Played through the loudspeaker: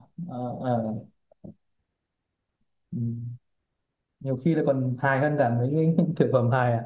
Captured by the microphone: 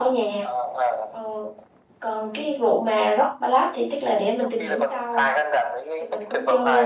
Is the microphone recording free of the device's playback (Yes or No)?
No